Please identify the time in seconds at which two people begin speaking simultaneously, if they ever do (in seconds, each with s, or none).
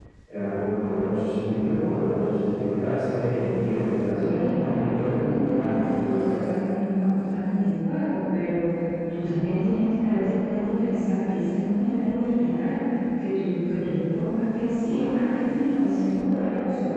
4.3 s